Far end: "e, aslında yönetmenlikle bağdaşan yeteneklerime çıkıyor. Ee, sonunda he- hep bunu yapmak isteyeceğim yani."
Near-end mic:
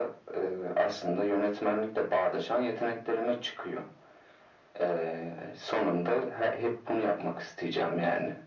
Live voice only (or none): none